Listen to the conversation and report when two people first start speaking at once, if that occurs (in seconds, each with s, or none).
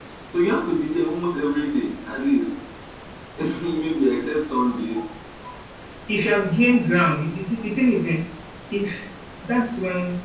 none